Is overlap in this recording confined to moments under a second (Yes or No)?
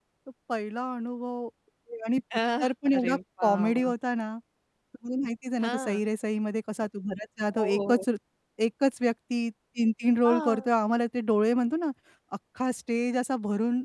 No